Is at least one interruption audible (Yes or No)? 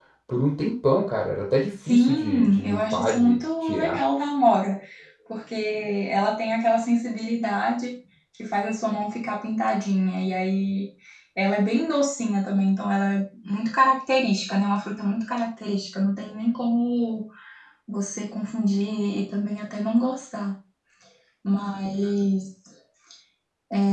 Yes